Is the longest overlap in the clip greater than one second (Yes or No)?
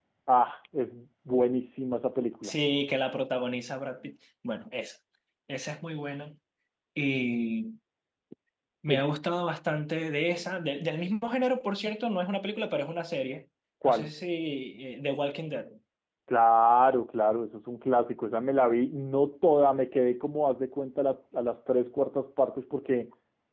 No